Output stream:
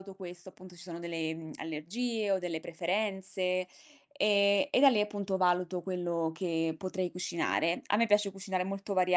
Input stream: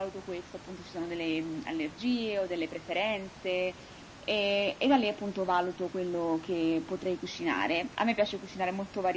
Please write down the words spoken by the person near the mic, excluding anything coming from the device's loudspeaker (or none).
none